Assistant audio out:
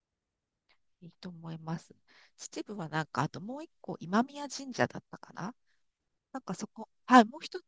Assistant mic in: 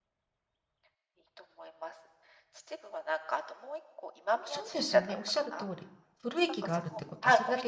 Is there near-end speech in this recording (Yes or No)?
Yes